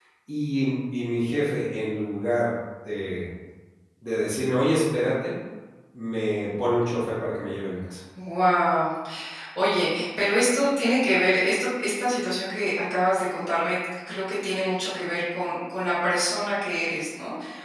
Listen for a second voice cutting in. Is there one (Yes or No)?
No